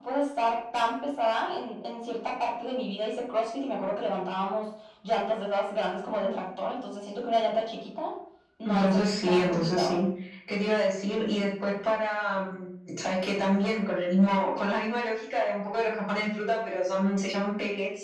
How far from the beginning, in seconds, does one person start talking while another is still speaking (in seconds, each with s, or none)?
8.6 s